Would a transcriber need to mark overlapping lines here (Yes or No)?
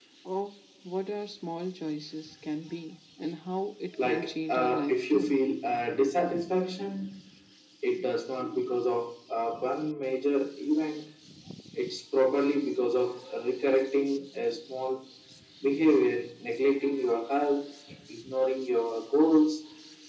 Yes